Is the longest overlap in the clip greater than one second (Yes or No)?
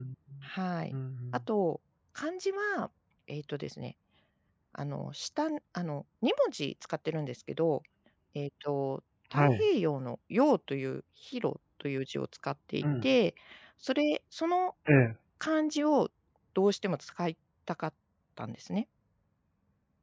No